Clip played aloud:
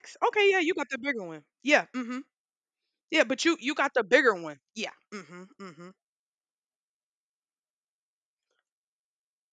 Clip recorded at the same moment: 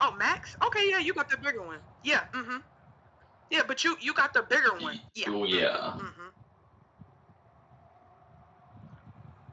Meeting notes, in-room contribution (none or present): present